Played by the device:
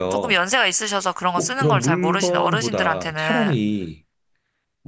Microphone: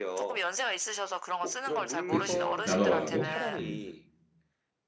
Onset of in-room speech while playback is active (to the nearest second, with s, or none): 2 s